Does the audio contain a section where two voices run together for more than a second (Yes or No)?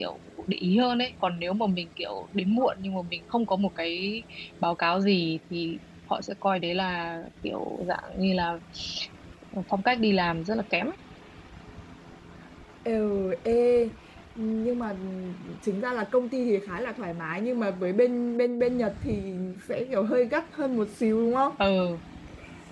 No